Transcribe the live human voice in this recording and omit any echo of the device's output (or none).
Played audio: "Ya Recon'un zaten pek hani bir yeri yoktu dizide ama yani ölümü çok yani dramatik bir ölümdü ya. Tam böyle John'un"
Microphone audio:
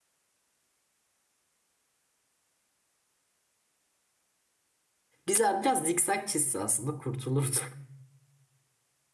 Güzel biraz zikzak çizse aslında kurtulurdu.